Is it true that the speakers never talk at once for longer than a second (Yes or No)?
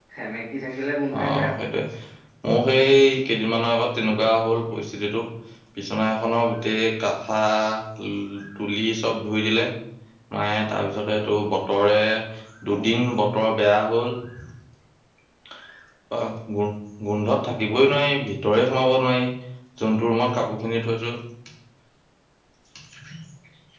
Yes